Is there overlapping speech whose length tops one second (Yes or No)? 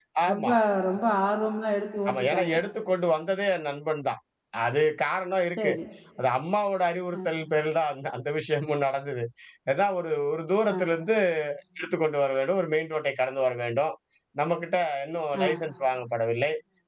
No